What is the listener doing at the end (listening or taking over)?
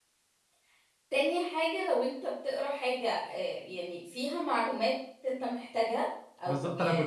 taking over